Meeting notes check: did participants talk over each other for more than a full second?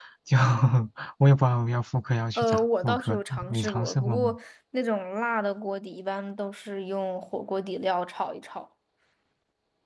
Yes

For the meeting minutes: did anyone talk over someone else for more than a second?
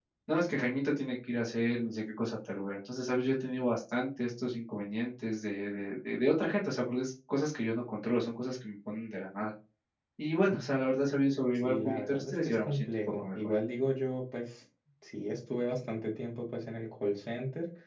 Yes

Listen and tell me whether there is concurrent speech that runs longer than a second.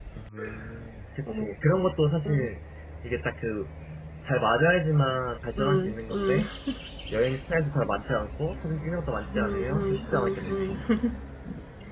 Yes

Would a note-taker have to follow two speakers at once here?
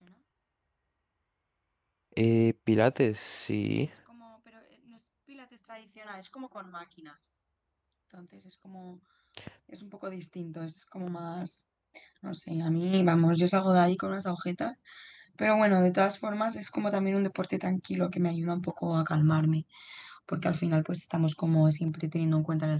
No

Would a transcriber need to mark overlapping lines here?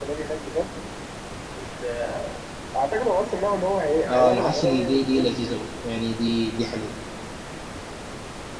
Yes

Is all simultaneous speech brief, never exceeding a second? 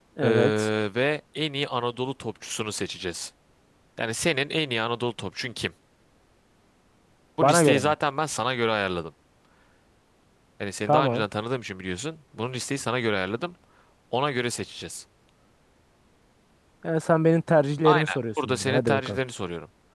No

